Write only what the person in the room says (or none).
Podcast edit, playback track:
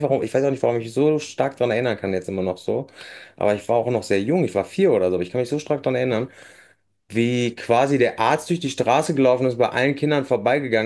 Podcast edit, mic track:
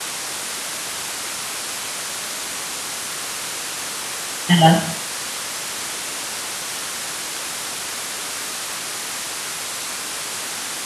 ja.